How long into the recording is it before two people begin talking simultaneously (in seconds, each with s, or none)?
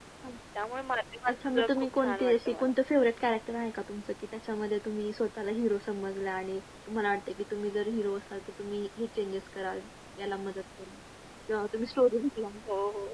1.3 s